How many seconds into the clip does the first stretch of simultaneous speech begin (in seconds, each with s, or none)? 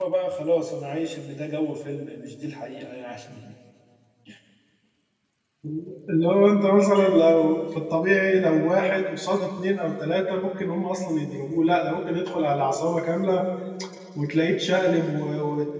none